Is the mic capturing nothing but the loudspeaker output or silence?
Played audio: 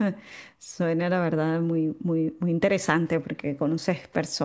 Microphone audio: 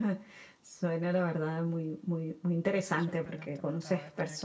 No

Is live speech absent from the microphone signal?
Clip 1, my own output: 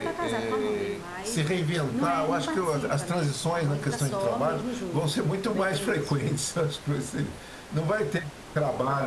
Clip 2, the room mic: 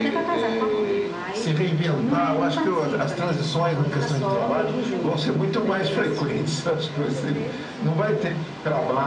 No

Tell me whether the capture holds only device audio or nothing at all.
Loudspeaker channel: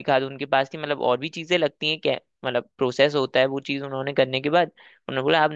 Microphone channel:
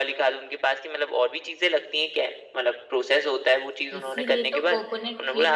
No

